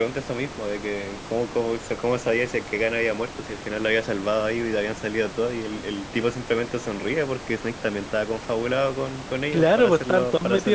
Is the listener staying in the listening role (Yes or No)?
No